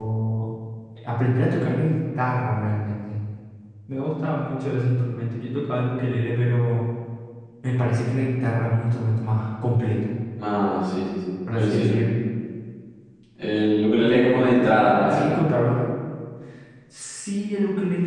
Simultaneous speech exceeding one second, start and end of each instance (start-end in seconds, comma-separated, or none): 14.0-15.3